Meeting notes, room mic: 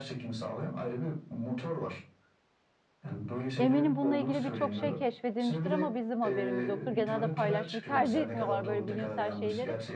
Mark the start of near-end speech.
4 s

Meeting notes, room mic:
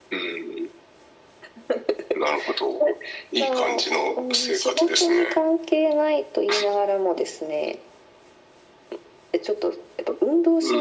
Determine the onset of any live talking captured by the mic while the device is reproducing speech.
none

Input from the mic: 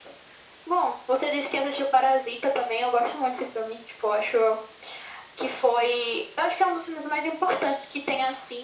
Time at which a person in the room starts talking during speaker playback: none

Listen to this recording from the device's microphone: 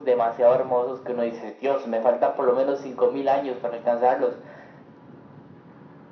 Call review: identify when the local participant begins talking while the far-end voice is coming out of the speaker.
none

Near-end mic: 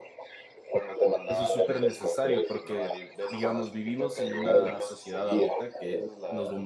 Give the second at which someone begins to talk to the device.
1 s

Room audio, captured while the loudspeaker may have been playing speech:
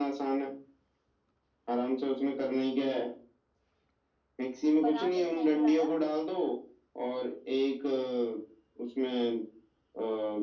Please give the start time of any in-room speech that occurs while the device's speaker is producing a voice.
5 s

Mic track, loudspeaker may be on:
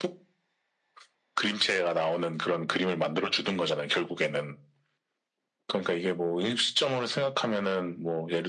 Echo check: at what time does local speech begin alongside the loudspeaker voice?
none

